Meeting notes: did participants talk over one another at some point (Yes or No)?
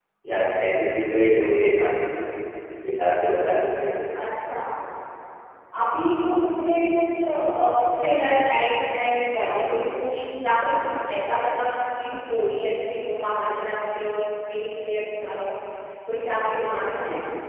No